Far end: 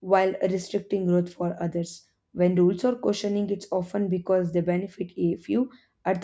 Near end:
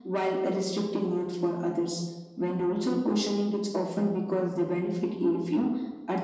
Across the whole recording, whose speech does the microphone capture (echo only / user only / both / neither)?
echo only